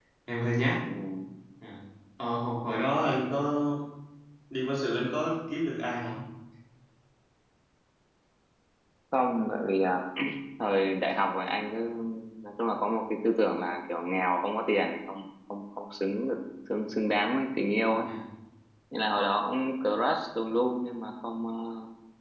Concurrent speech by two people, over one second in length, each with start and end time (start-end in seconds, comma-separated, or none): none